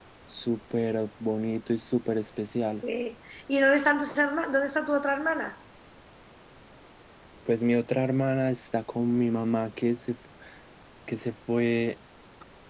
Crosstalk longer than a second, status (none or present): none